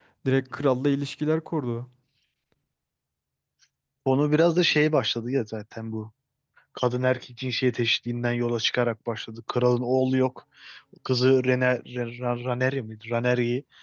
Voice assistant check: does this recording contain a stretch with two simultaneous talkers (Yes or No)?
No